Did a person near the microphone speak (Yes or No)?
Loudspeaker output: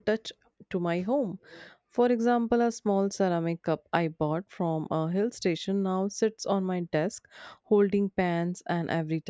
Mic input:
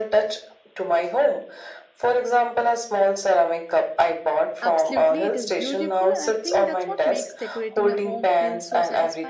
Yes